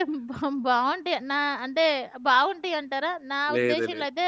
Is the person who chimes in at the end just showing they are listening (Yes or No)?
Yes